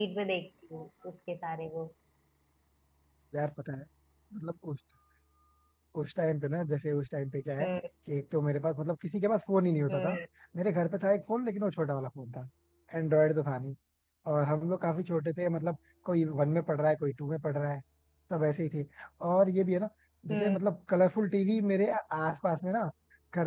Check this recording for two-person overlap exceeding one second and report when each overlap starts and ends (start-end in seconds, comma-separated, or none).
none